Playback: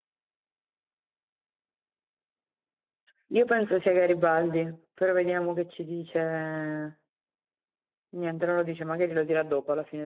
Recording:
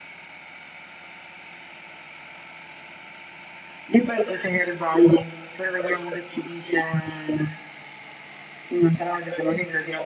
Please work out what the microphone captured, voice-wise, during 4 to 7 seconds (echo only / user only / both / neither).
echo only